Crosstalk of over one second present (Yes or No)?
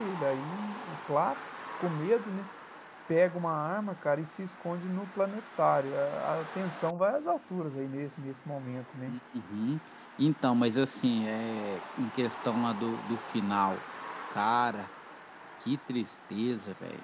No